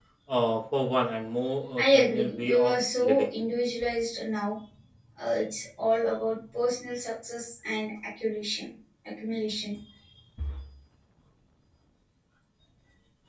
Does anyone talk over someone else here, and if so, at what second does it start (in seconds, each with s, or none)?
1.8 s